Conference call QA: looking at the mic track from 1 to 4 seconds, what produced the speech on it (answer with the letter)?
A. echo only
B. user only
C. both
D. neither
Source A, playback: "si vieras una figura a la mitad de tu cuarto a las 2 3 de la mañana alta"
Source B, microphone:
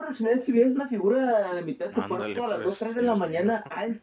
C